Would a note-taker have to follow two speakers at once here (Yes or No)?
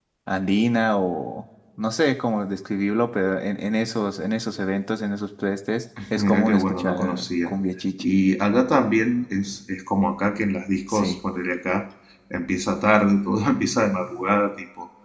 Yes